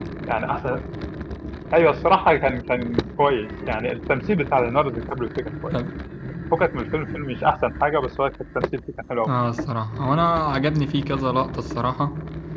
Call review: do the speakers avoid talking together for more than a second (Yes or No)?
Yes